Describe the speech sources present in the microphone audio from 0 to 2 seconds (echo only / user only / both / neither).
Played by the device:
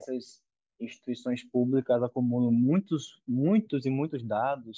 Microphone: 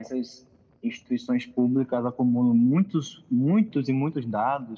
echo only